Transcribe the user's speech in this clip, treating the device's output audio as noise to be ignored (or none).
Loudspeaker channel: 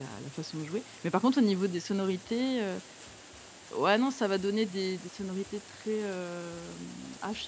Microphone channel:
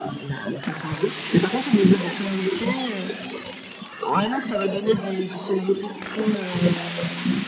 none